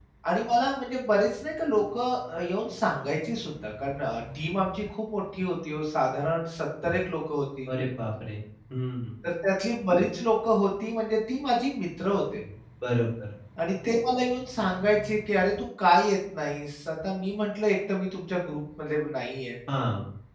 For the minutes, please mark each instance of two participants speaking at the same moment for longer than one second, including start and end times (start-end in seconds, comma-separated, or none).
none